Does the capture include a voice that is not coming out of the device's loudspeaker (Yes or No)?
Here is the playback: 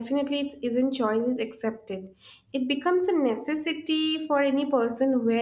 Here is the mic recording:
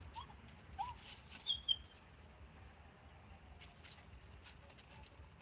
No